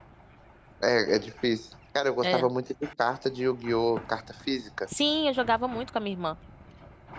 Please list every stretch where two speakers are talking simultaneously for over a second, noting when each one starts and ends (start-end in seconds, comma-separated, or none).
none